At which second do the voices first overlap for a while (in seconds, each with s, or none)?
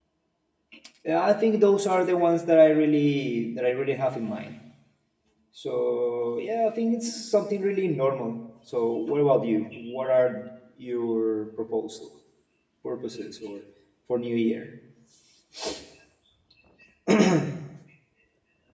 none